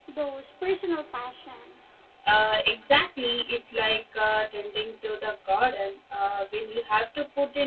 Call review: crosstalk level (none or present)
none